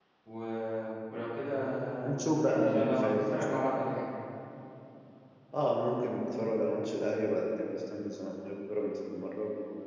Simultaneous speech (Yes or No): Yes